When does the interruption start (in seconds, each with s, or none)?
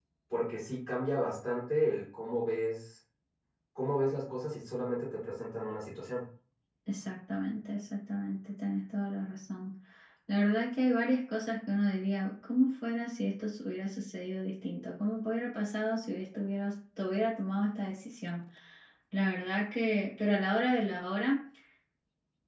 none